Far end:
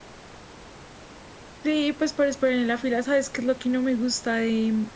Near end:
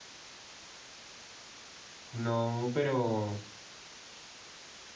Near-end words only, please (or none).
No, pero...